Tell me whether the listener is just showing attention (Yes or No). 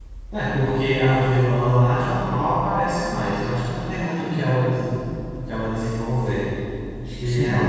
No